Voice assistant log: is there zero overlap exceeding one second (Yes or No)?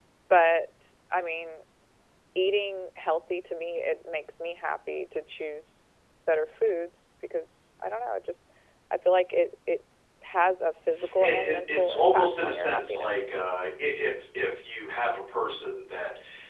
No